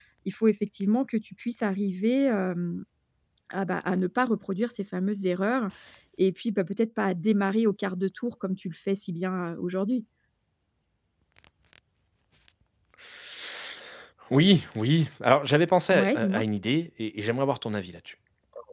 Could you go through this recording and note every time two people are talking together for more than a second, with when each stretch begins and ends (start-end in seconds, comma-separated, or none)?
none